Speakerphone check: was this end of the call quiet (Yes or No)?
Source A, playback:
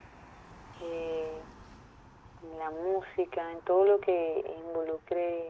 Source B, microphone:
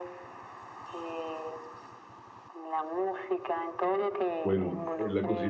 No